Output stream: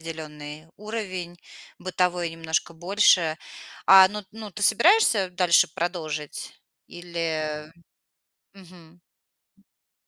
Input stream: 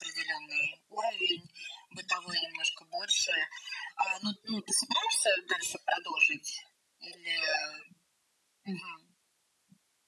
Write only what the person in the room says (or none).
none